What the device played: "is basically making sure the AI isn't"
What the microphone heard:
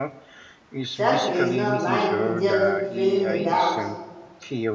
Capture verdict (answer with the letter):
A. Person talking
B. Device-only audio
A